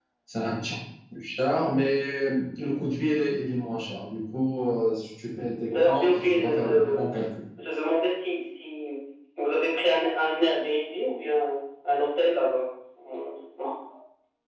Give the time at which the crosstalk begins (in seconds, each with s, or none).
5.7 s